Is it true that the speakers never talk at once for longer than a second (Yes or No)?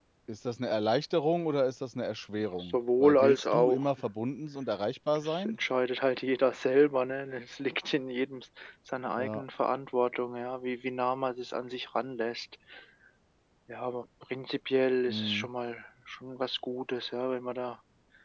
No